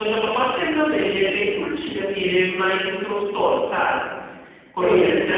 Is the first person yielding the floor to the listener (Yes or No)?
No